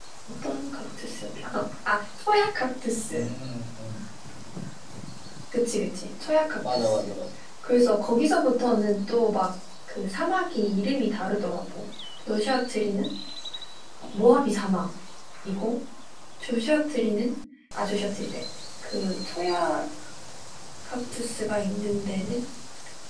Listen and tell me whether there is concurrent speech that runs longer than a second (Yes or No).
No